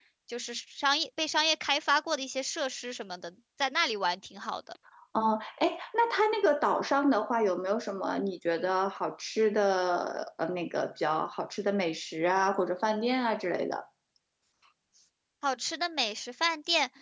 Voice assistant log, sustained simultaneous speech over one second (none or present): none